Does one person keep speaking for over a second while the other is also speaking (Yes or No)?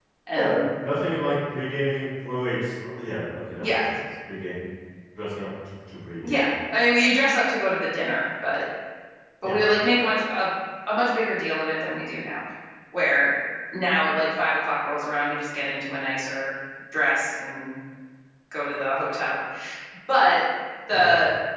No